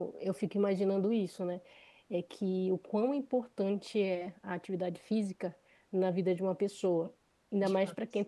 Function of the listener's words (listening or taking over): listening